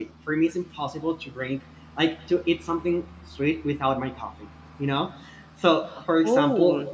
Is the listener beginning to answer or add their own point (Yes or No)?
No